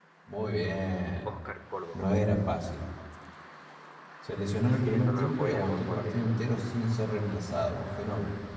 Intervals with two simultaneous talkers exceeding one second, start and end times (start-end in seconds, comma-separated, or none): 4.6-6.2